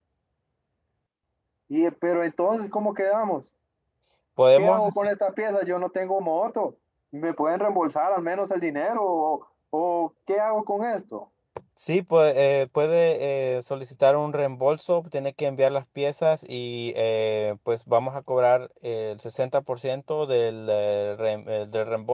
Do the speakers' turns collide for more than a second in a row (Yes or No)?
No